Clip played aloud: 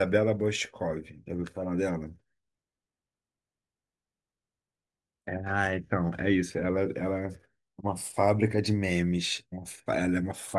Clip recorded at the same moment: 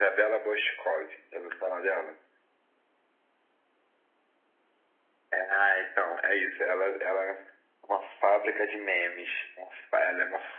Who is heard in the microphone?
echo only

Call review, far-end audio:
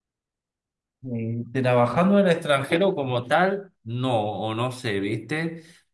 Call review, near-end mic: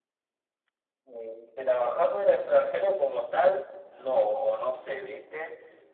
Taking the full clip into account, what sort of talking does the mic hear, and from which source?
echo only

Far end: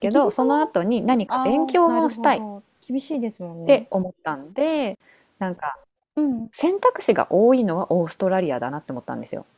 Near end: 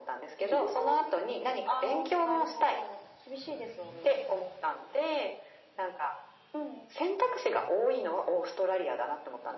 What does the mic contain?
echo only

